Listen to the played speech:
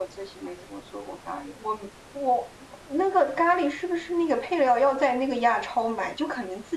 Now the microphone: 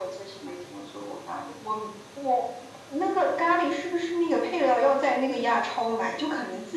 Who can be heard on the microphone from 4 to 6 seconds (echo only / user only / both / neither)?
echo only